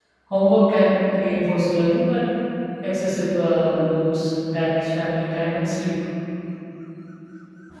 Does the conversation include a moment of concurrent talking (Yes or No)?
No